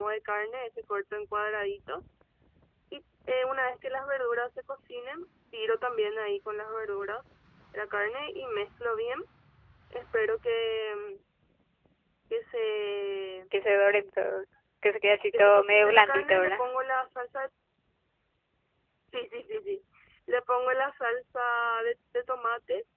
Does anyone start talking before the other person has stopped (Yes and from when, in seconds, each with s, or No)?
Yes, from 15.4 s